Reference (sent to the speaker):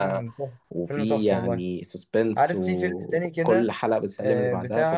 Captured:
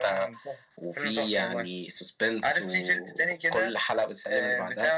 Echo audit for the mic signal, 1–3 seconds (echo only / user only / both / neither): echo only